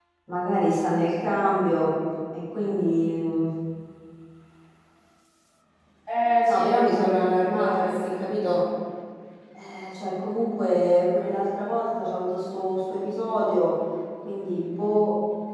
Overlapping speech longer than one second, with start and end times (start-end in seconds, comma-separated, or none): 6.4-8.3